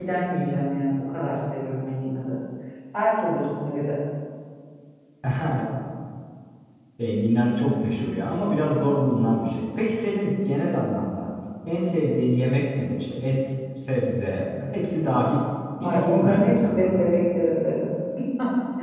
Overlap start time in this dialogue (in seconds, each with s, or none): 15.8 s